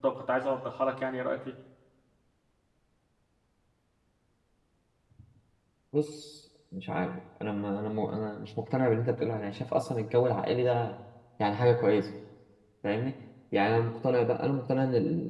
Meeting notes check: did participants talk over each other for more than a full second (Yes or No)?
No